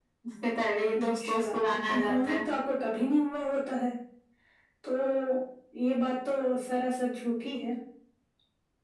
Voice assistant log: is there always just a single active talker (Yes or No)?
No